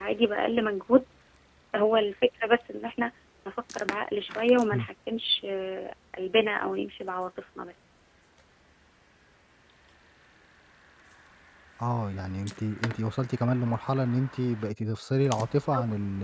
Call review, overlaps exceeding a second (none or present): none